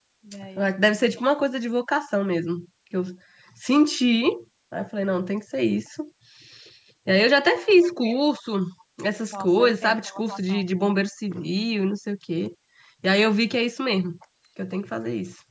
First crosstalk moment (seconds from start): 9.3 s

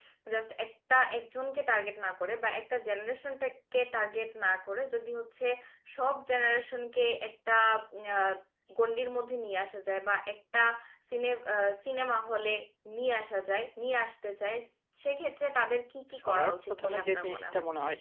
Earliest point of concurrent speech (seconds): 16.2 s

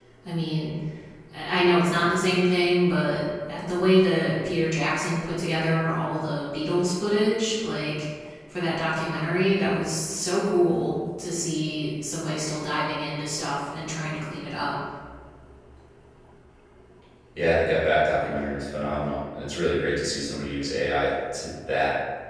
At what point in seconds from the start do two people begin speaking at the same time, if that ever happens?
none

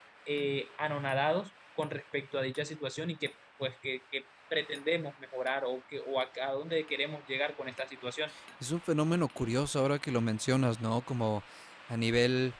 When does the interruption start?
none

